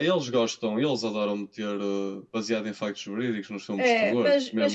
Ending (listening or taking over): taking over